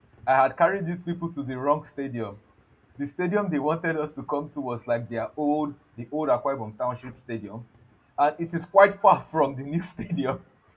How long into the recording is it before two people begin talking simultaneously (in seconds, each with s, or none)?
none